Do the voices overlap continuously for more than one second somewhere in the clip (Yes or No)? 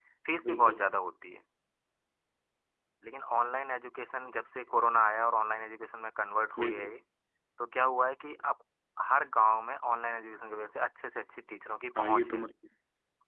No